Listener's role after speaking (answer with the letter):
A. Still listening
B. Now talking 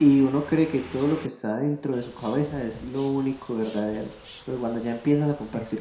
A